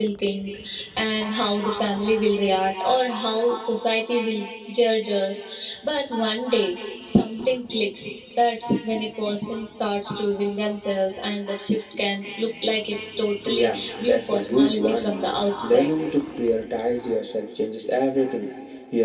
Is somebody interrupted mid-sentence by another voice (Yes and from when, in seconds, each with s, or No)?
Yes, from 13.4 s